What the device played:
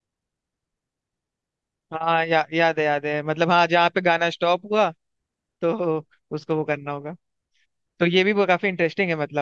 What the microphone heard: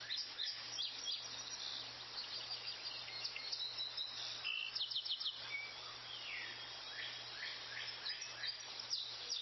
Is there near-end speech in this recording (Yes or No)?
No